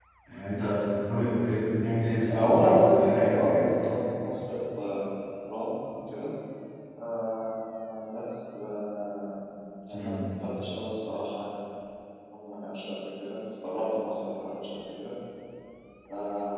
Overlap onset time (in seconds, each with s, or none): 2.3 s